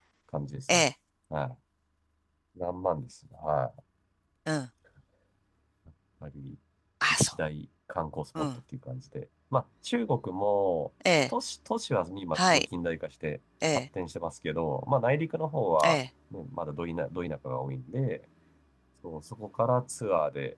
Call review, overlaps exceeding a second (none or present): none